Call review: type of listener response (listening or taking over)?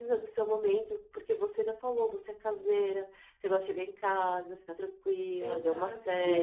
taking over